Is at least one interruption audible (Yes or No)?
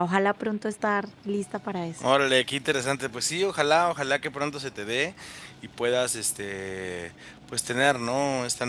No